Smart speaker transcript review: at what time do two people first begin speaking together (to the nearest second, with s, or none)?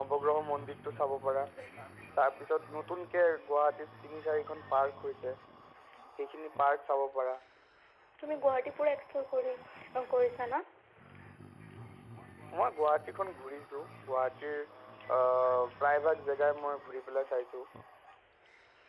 none